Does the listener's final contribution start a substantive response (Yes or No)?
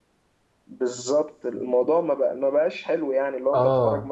No